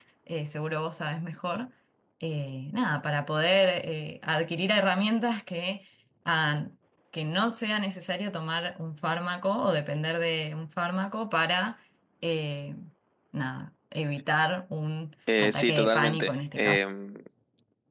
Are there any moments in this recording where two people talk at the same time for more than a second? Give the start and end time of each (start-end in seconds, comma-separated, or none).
15.4-16.8